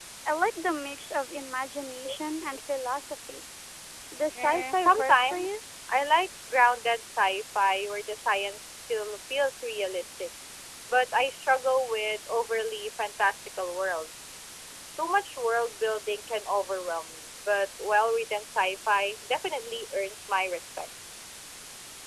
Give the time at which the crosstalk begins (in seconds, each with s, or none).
4.4 s